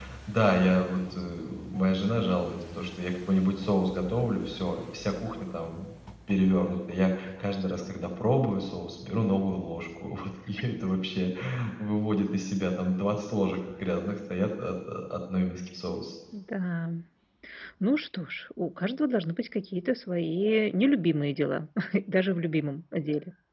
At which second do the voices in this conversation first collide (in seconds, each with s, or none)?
none